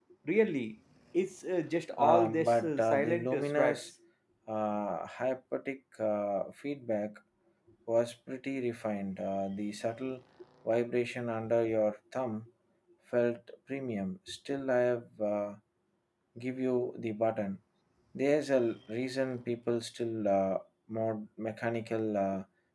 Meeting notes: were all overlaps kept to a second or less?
No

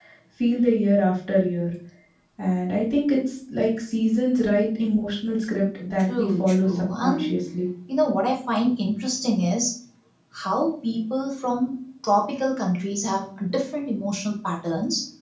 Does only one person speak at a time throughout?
No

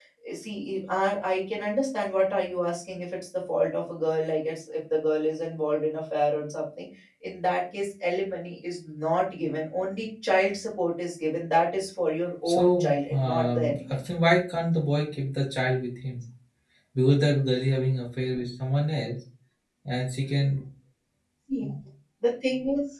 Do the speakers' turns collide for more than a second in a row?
Yes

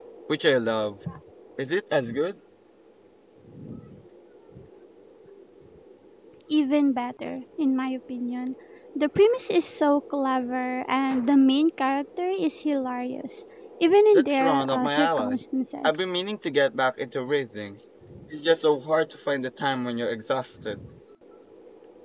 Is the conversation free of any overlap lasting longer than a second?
No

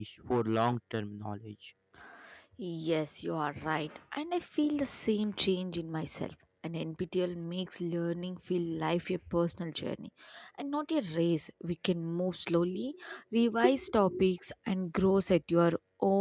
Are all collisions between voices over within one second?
Yes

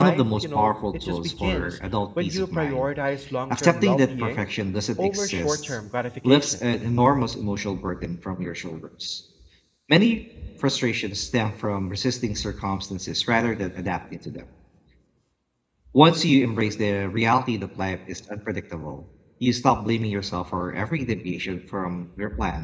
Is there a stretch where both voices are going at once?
Yes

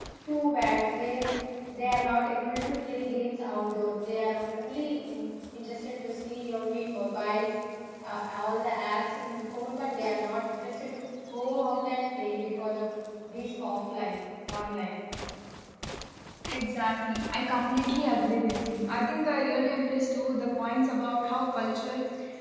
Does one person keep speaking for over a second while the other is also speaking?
No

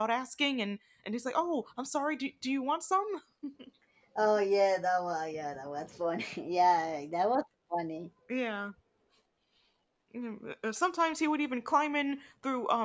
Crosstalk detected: No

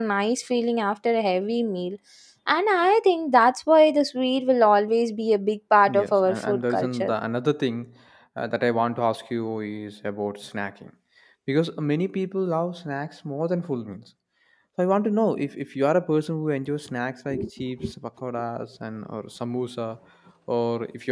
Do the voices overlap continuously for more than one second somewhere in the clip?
Yes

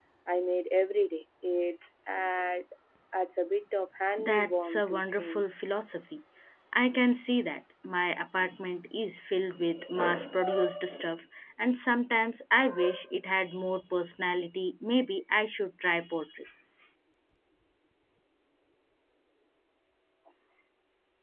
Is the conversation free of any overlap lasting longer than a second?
No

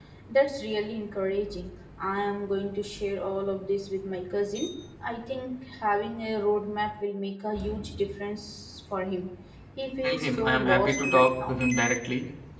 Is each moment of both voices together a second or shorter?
No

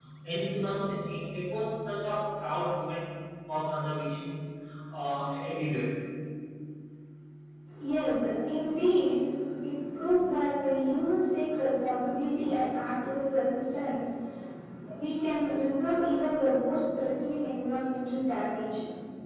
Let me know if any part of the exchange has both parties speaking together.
No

